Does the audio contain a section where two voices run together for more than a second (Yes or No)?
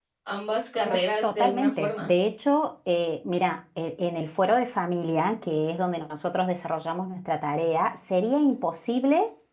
Yes